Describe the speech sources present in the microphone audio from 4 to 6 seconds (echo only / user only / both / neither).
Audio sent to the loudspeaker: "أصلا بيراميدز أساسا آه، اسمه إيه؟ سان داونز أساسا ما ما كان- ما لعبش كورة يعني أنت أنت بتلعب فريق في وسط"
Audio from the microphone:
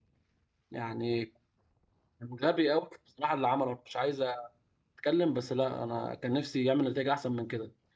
user only